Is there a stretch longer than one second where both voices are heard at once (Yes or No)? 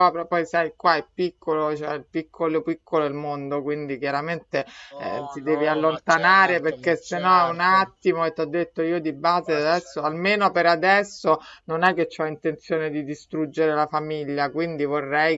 Yes